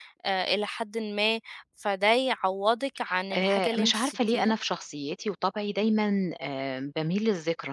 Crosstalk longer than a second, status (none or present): present